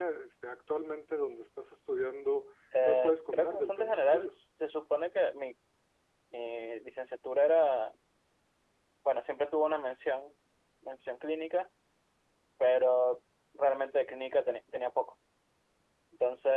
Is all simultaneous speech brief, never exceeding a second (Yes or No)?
No